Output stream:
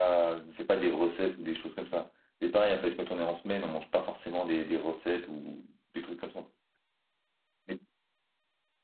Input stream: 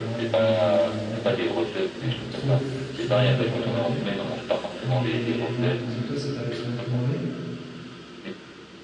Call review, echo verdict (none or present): present